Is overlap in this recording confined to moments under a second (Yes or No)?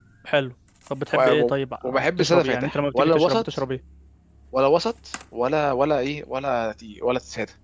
No